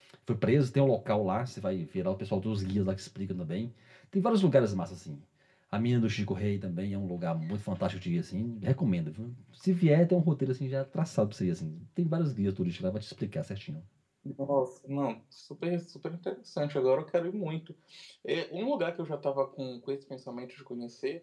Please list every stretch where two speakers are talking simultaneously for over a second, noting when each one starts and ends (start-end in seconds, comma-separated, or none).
none